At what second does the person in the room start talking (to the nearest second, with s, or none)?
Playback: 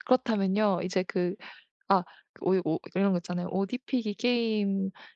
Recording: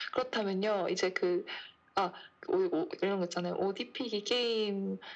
none